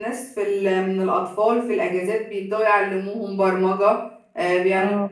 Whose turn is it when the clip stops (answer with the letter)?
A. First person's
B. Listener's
A